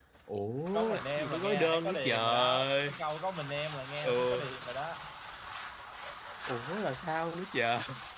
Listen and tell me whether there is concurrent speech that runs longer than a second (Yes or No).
Yes